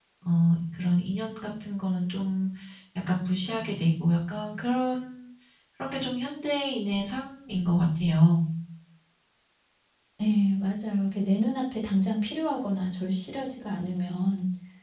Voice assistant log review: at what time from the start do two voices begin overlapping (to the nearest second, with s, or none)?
none